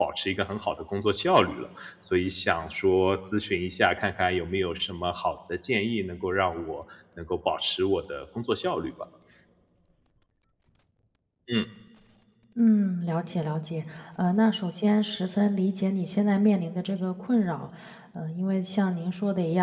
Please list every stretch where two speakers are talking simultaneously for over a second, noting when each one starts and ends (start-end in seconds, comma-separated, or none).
none